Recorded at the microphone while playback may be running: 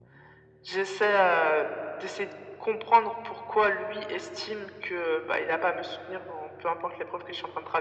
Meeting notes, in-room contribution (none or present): none